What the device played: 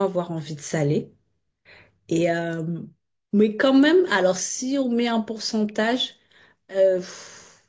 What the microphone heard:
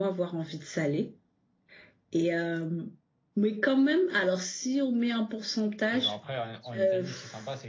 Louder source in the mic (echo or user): echo